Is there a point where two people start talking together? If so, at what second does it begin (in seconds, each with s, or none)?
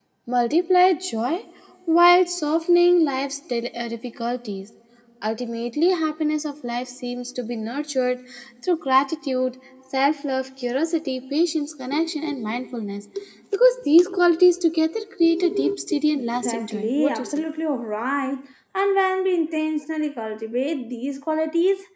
16.1 s